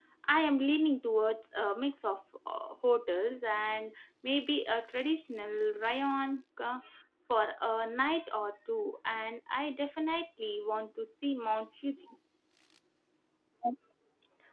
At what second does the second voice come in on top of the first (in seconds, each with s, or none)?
none